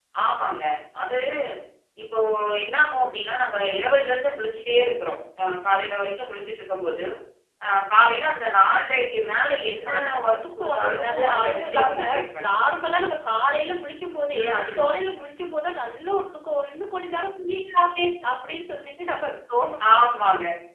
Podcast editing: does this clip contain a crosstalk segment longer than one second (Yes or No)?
Yes